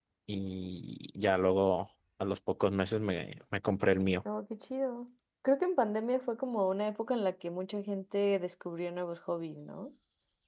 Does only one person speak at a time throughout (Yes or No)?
Yes